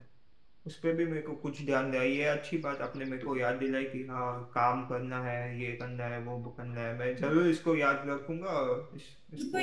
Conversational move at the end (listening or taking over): taking over